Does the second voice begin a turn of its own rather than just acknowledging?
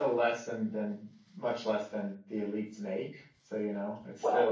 No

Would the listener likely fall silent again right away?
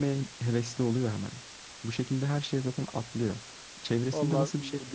Yes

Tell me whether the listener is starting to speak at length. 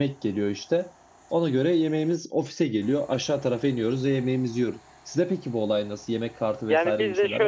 Yes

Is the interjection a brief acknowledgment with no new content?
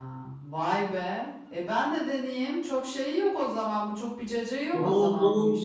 No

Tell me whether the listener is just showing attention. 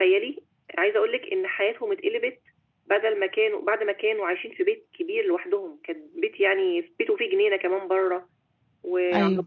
Yes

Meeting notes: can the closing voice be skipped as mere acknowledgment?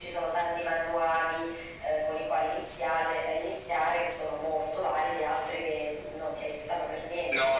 No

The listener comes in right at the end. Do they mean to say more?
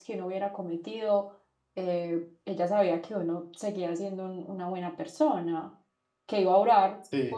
No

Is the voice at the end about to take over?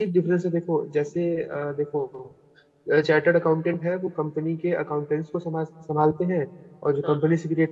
No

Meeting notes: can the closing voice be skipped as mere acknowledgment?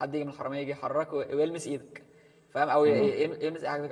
Yes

